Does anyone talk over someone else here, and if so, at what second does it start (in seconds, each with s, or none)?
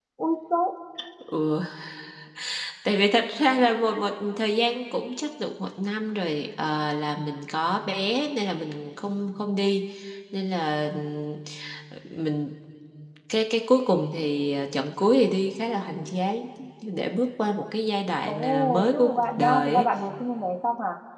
18.3 s